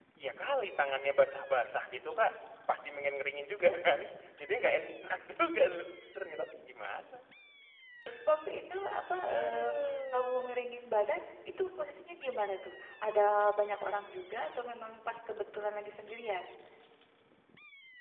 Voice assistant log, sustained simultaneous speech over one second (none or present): present